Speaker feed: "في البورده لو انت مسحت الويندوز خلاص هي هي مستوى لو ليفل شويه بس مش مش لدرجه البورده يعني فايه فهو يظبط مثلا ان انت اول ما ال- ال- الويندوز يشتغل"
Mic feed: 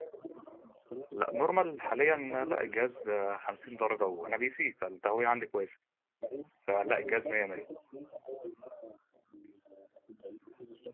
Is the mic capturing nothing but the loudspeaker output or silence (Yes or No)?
No